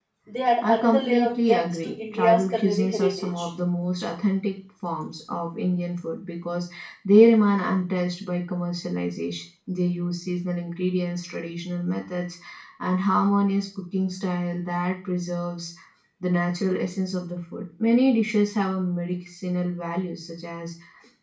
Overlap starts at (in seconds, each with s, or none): 0.6 s